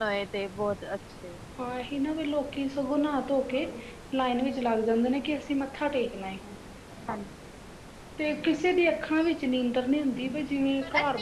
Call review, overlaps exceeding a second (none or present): none